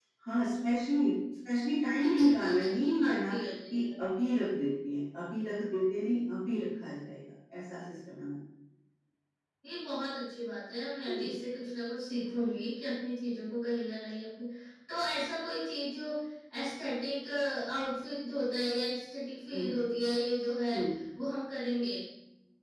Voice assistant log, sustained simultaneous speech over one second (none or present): present